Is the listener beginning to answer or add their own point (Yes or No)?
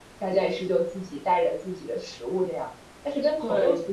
No